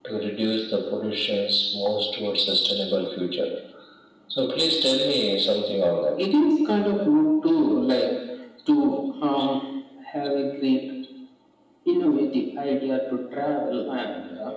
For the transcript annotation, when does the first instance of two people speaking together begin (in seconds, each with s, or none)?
none